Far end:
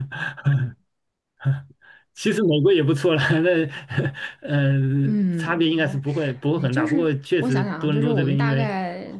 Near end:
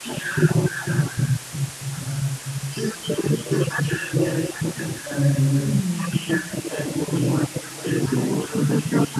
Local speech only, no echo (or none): 嗯